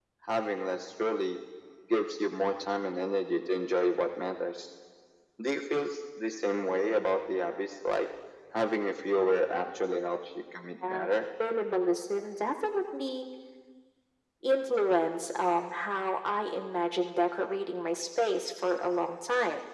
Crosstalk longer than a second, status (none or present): none